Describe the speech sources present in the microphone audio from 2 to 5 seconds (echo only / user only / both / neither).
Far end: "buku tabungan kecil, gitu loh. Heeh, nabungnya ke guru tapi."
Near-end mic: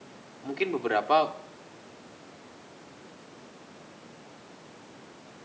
neither